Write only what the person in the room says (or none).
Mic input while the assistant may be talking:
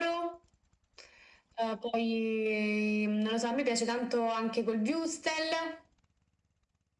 none